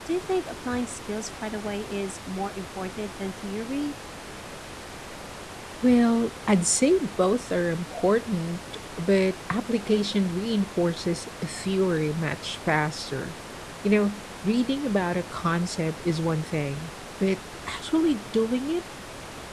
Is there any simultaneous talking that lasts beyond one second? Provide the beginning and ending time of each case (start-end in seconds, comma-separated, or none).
none